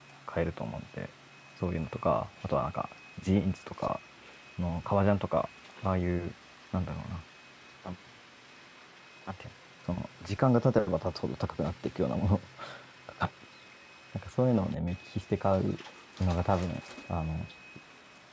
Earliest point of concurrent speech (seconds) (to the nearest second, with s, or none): none